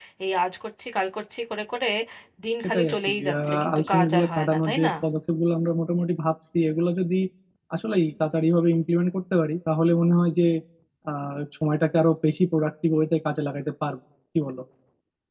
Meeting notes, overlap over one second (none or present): present